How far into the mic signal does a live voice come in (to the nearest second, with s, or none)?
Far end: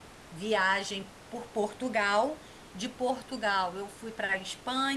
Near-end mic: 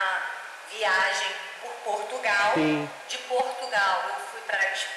3 s